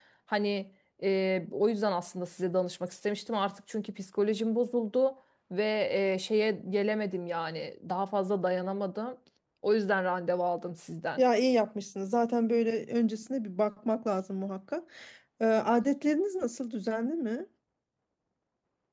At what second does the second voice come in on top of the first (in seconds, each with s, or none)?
none